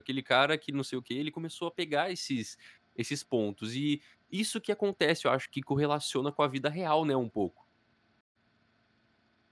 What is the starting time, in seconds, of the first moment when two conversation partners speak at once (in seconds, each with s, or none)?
none